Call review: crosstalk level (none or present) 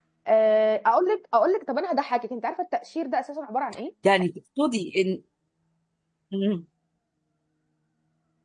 none